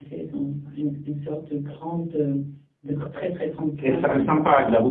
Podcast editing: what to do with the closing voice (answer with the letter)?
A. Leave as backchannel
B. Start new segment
B